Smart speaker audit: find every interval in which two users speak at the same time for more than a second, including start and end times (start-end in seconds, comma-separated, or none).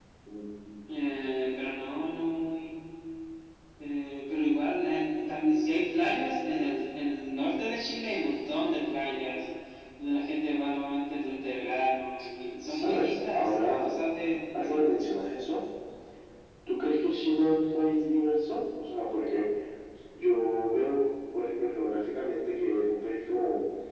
12.7-13.9